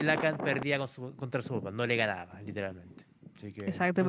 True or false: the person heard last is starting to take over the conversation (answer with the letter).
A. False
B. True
B